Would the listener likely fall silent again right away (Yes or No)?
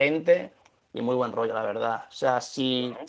Yes